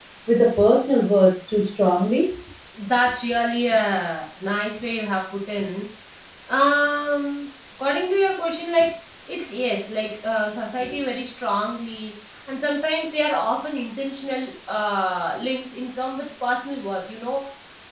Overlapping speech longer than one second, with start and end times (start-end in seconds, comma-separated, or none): none